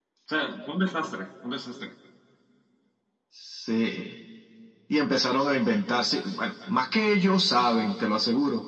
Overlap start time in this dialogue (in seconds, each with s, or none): none